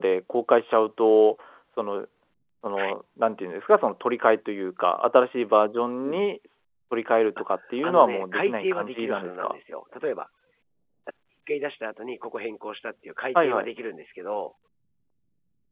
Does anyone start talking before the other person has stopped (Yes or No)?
Yes